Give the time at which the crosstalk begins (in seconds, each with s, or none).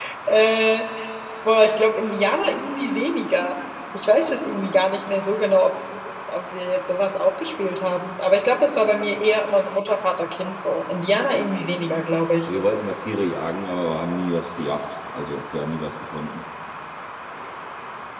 none